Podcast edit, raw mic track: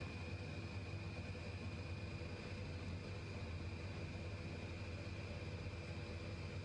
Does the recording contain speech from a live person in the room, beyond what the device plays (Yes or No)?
No